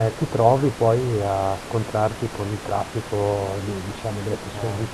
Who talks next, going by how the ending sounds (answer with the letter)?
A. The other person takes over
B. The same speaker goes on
B